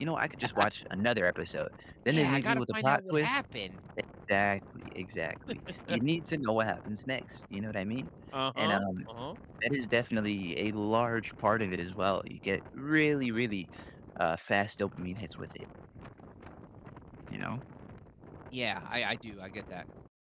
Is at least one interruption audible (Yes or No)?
Yes